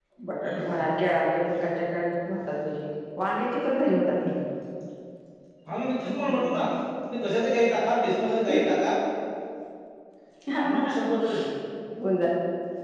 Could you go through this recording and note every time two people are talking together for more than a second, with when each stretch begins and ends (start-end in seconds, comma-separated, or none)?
none